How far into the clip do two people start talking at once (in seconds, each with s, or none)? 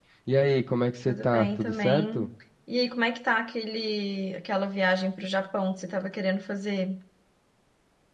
1.0 s